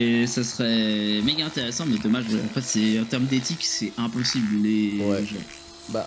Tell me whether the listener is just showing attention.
No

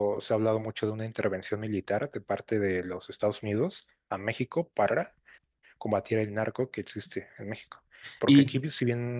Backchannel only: Yes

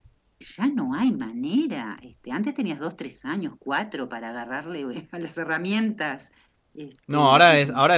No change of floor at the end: No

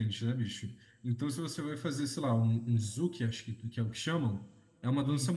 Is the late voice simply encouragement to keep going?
Yes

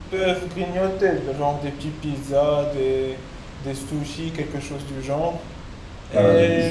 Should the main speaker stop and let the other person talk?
Yes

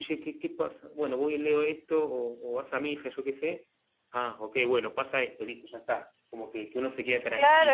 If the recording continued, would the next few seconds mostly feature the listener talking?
Yes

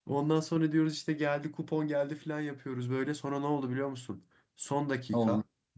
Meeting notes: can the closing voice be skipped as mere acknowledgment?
Yes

